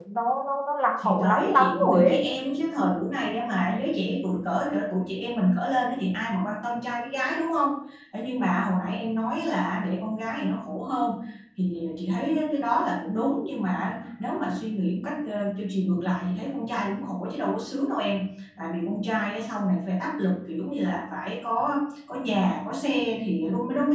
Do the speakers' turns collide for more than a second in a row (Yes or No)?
Yes